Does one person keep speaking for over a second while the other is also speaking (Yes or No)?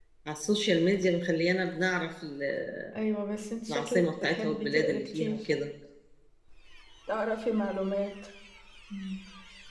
Yes